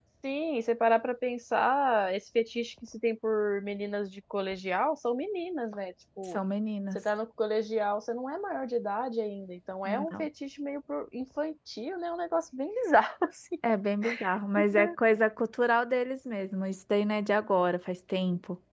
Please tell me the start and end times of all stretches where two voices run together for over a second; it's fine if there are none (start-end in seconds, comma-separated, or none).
none